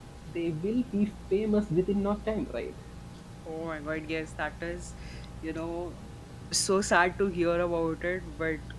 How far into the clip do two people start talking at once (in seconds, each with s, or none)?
none